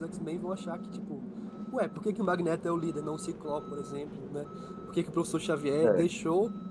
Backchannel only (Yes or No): Yes